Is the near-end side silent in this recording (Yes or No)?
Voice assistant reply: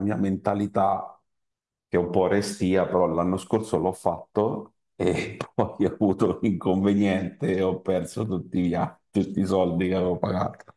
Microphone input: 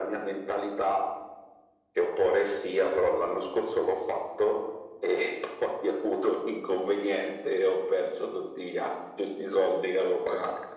Yes